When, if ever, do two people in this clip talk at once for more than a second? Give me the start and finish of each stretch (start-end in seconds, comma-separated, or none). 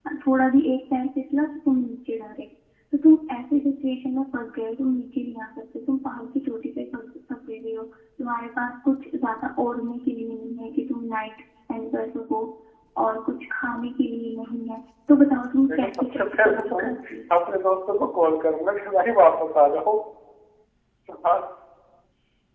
15.7-16.9